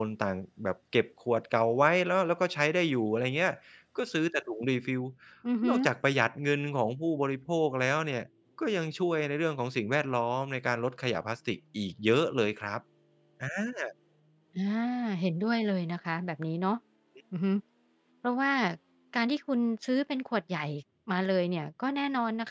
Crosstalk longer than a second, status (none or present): none